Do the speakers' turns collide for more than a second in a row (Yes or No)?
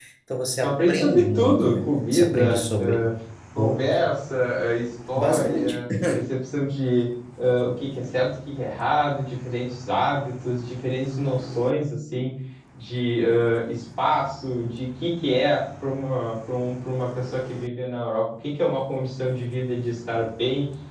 Yes